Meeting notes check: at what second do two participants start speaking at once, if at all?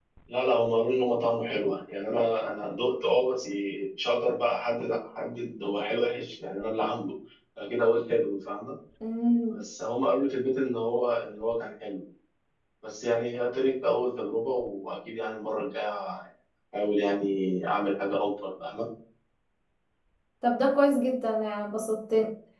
none

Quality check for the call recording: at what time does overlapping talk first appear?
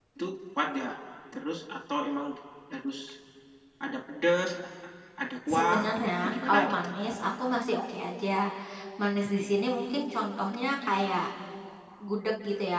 5.6 s

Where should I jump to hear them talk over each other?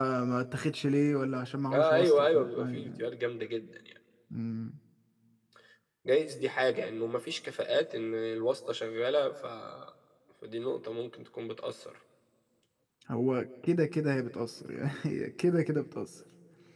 1.7 s

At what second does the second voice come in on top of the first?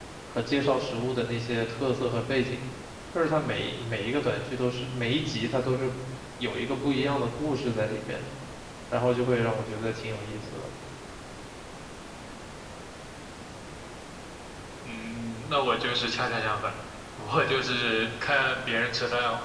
none

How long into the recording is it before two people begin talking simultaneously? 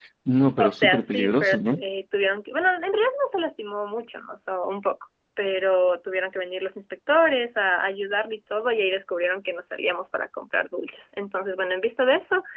0.6 s

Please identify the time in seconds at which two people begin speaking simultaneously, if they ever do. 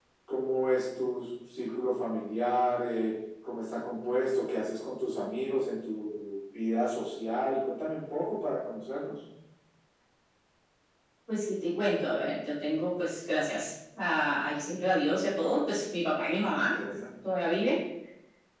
none

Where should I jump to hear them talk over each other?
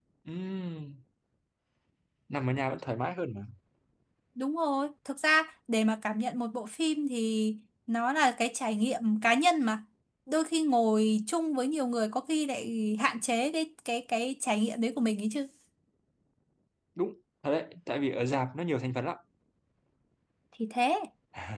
none

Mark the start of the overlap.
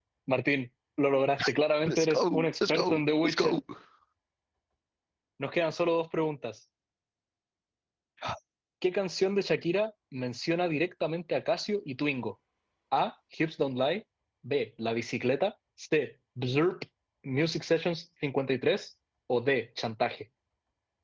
1.9 s

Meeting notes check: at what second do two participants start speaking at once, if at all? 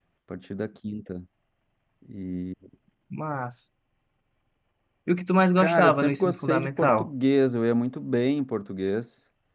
5.6 s

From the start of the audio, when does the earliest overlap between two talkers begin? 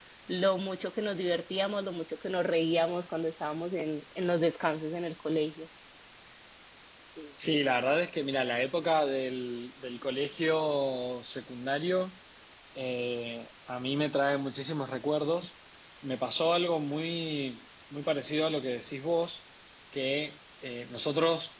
none

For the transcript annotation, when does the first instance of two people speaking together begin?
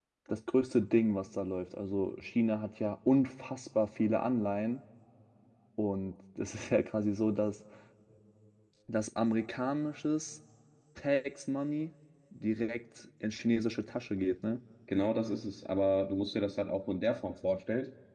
none

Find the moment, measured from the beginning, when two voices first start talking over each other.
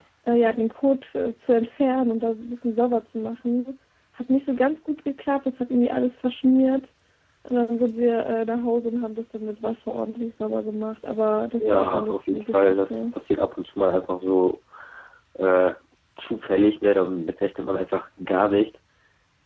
11.6 s

